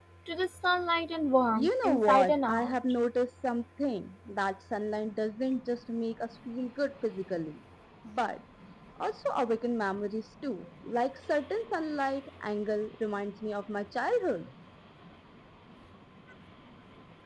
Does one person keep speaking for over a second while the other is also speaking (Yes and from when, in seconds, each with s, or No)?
Yes, from 1.5 s